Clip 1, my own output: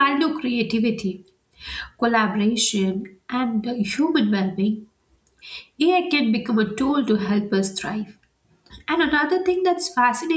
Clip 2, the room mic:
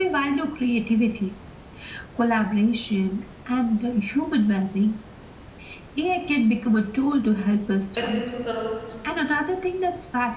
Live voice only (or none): ఎందుకు తీసుకుంటారు